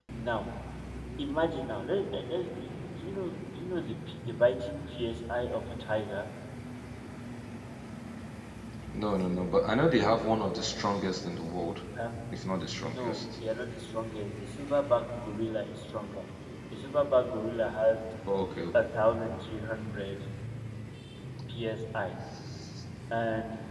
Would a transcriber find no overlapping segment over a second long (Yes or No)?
Yes